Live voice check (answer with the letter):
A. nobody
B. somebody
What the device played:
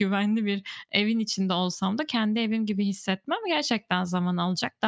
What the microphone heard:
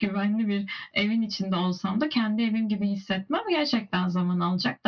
A